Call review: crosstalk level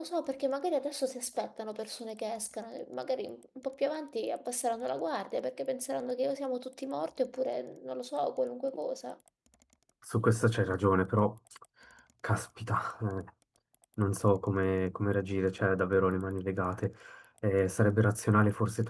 none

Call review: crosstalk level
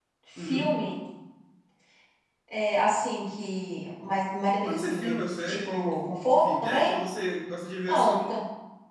present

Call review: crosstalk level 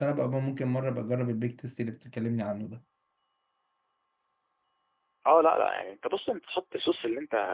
none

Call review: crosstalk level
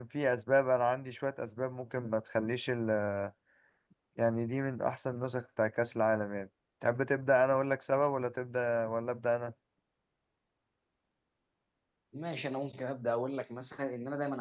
none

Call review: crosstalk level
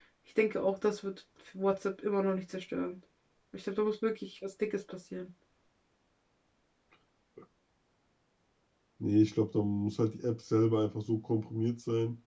none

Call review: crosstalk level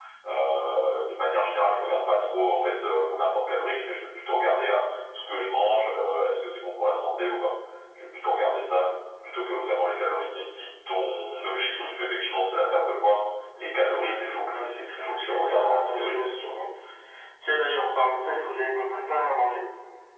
present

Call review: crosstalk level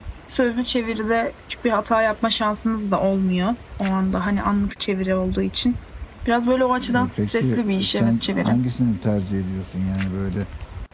present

